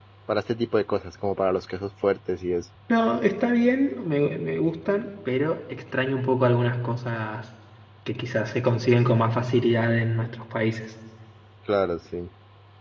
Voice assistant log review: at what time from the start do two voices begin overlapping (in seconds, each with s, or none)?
none